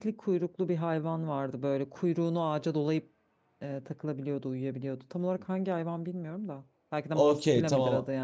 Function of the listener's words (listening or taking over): taking over